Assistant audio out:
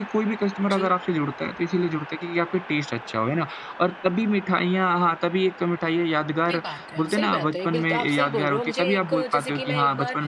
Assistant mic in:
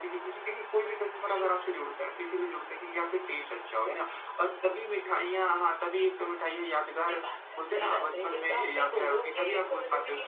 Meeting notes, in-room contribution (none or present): none